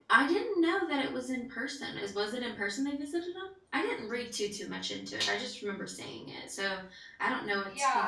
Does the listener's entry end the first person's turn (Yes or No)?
Yes